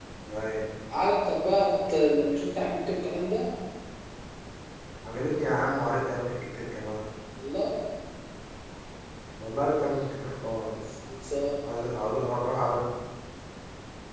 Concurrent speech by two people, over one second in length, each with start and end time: none

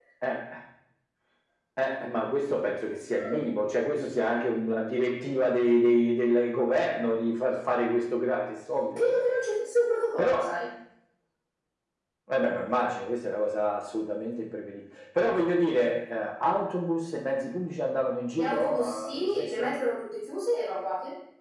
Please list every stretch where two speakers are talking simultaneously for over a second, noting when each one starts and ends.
18.4-19.7

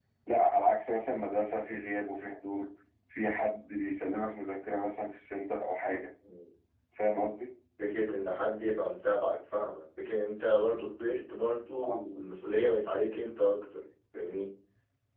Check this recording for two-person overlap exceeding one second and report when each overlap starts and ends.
none

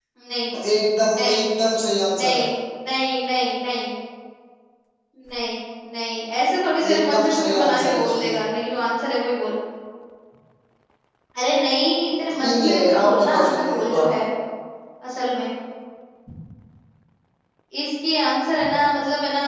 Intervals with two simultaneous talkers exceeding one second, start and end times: 6.9-8.4, 12.4-14.1

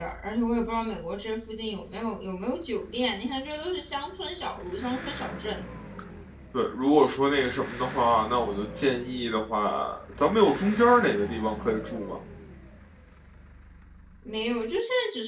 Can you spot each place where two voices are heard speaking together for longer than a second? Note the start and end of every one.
none

